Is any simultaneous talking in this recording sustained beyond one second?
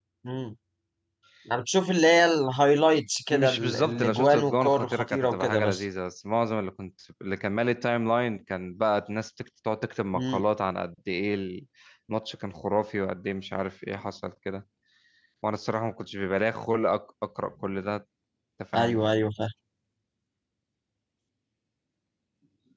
Yes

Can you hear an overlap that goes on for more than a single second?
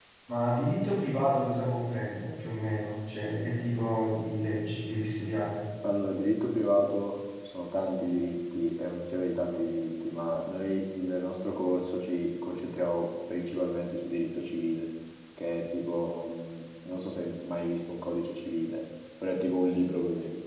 No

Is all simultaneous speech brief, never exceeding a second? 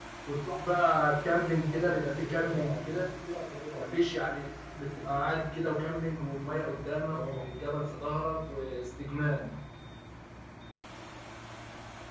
No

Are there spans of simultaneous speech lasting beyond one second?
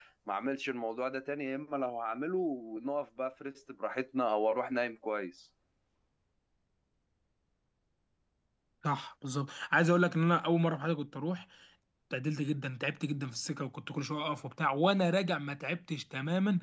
No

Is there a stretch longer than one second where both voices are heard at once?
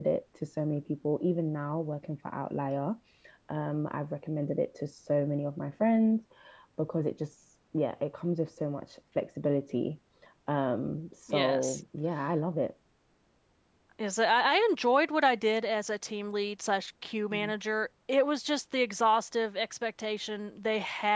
No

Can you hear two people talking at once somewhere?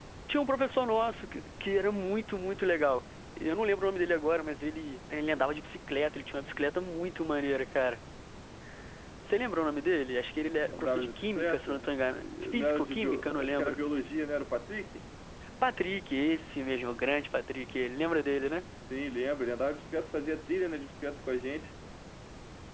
Yes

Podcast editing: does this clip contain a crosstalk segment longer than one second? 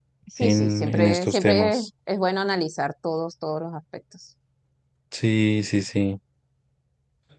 Yes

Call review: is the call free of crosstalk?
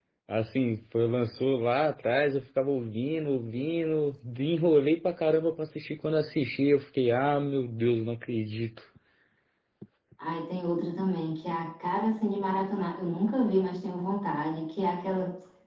Yes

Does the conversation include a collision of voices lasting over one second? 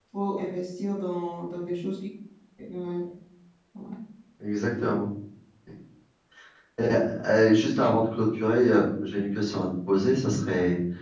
No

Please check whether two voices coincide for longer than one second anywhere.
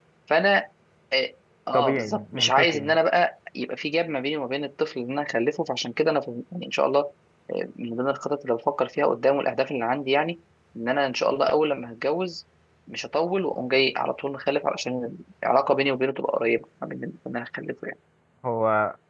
Yes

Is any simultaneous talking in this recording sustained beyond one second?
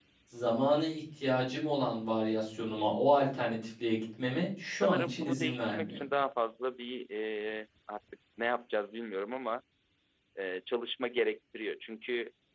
Yes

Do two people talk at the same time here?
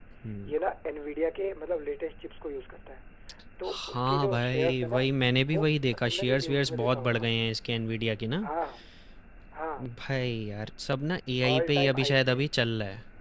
Yes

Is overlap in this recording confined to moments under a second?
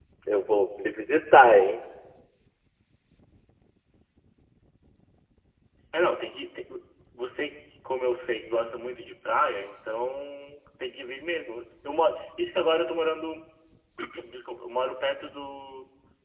Yes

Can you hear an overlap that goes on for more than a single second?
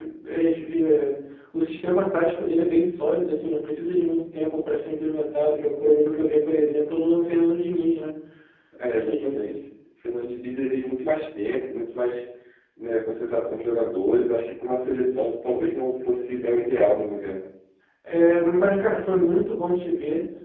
No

